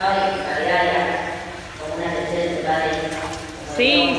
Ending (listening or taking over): taking over